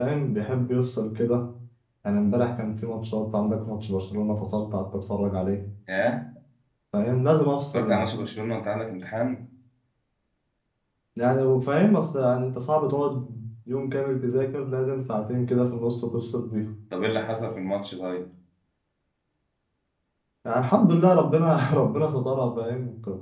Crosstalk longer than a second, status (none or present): none